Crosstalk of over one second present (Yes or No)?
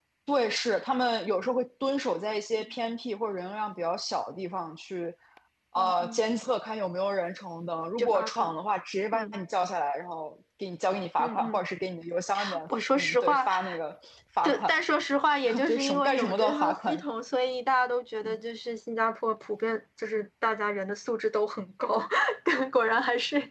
Yes